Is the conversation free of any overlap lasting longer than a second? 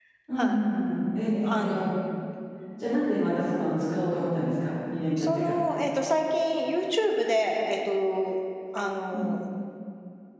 Yes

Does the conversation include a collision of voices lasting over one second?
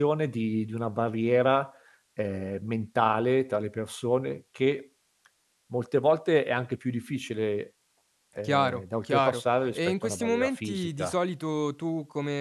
Yes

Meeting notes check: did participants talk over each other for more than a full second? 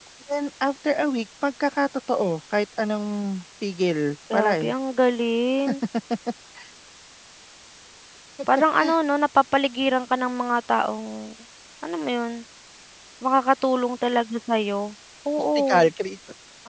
No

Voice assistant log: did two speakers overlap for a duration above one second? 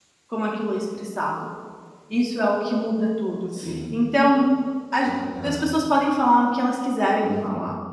No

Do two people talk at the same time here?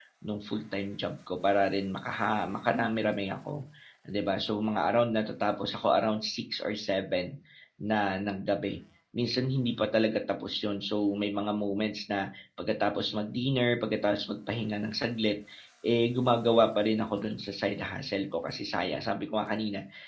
No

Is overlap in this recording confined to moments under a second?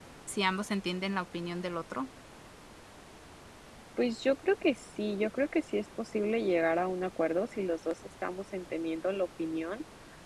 Yes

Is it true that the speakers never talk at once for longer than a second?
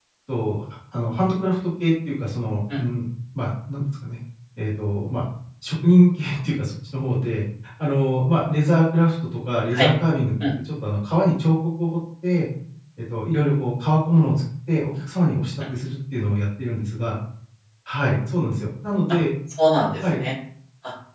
Yes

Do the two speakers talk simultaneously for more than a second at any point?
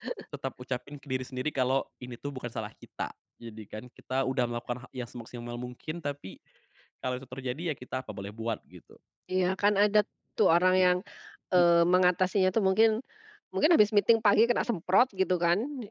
No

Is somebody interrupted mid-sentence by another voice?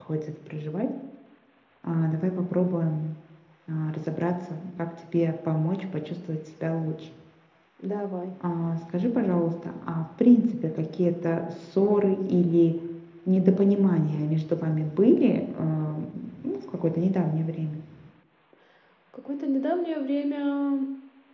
No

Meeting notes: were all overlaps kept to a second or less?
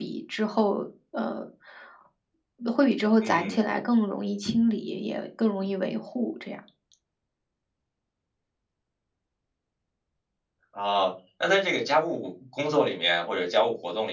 Yes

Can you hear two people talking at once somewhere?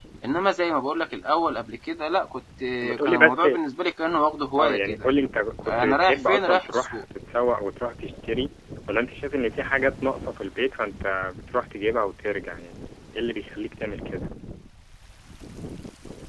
Yes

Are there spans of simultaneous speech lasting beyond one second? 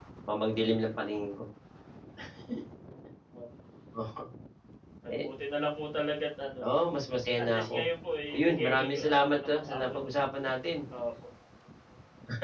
Yes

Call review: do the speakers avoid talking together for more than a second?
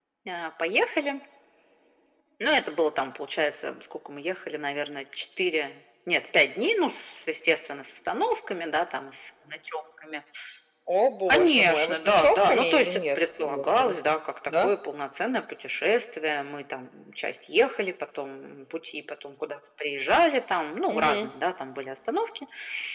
No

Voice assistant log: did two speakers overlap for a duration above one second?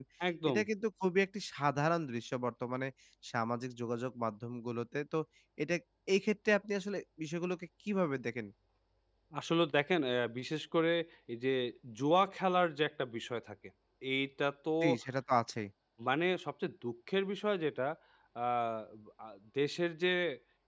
No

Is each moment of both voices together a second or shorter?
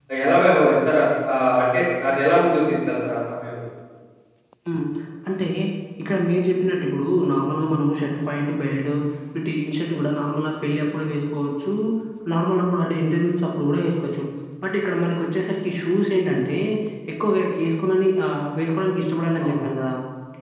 Yes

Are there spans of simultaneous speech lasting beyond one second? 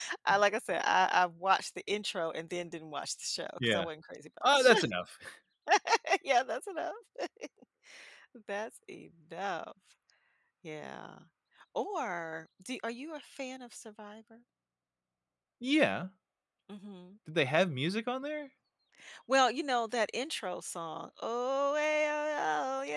No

